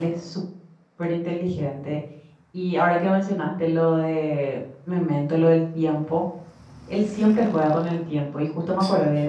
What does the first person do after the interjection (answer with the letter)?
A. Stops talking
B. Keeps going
B